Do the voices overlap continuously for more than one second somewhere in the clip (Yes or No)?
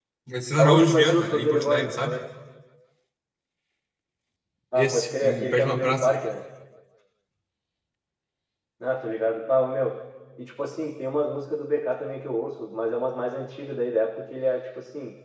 Yes